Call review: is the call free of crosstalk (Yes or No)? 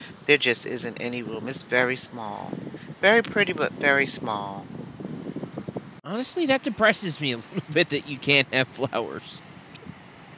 Yes